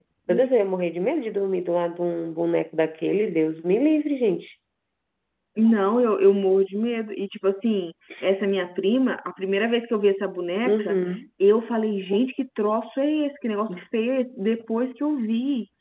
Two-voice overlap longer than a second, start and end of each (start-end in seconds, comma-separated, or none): none